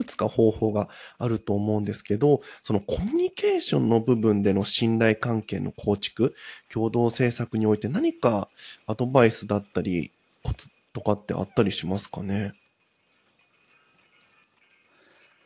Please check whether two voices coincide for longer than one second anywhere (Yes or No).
No